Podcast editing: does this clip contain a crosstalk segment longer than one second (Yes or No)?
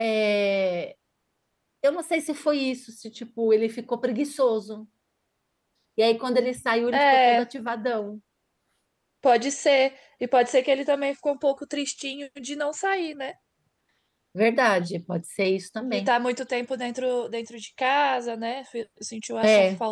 No